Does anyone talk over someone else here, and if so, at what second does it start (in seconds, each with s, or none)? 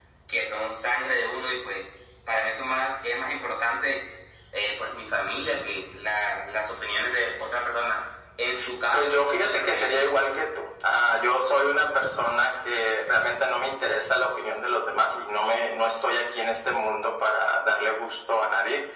8.9 s